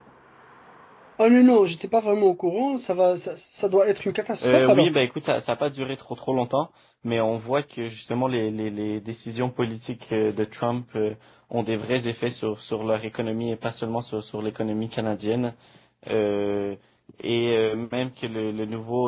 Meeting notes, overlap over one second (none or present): none